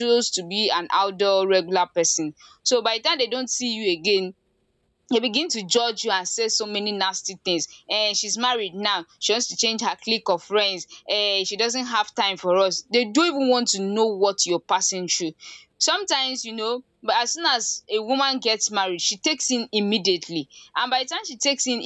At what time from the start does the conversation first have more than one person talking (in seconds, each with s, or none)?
none